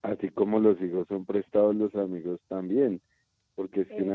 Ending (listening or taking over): listening